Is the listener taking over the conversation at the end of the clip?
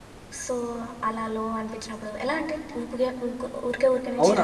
Yes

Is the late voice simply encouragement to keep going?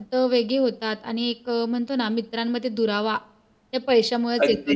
No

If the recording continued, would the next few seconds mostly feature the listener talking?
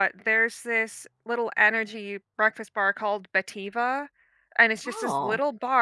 No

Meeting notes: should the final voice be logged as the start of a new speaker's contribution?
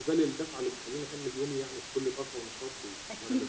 Yes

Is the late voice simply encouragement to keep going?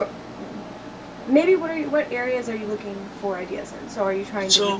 Yes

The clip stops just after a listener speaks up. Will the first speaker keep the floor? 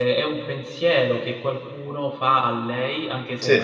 Yes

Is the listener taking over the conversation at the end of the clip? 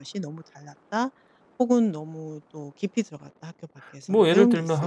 Yes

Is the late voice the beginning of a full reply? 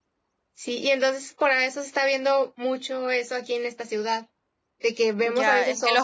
Yes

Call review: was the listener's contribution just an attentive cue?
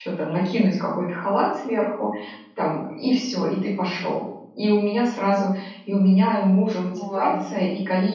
Yes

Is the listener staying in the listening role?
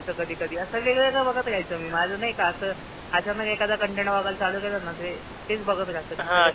No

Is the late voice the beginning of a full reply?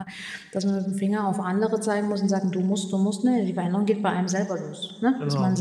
No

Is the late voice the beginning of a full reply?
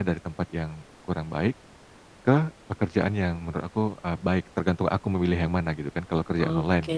Yes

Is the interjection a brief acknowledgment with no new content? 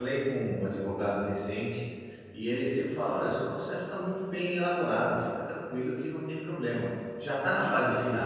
No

